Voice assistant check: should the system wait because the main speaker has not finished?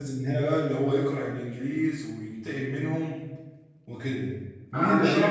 No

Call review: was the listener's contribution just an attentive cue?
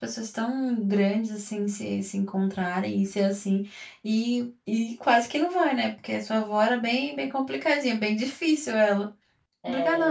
No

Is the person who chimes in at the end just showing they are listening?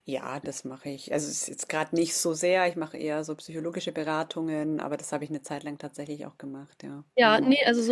No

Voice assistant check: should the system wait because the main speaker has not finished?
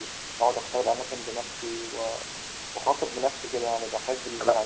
Yes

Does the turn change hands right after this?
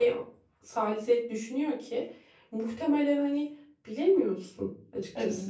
Yes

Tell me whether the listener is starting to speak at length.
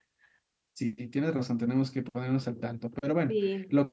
No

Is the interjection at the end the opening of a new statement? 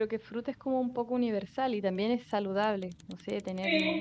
No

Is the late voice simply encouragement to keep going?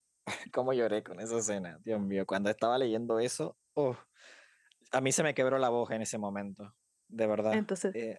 No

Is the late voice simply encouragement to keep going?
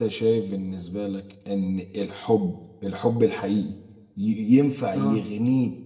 Yes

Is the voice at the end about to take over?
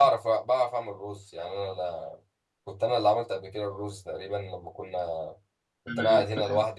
No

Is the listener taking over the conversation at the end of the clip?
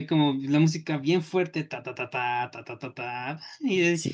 Yes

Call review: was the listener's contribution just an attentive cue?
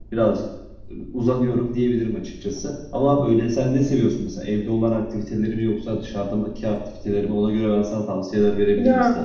No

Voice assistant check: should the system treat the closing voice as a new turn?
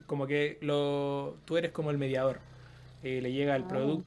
No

